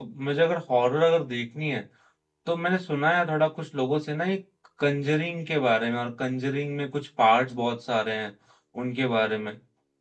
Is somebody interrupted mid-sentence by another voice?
No

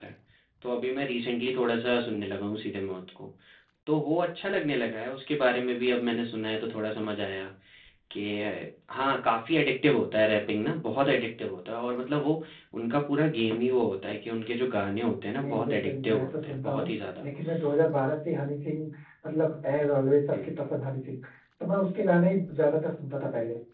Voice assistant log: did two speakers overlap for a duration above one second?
Yes, from 15.4 s

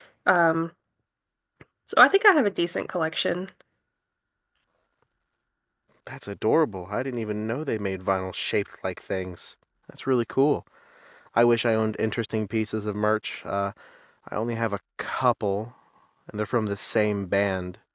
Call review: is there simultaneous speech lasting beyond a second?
No

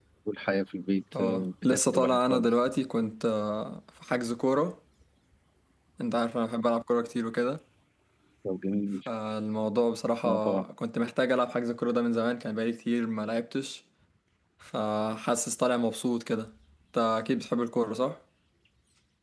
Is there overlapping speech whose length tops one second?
Yes, from 1.2 s

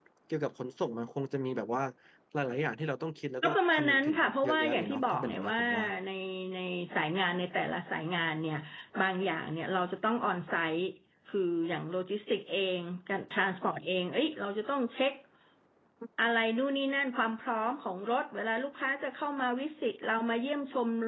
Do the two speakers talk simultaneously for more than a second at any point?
Yes, from 3.4 s

